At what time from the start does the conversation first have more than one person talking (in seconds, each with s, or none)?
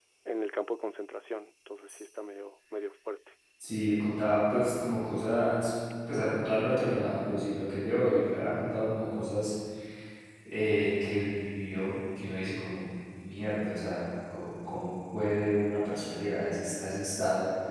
none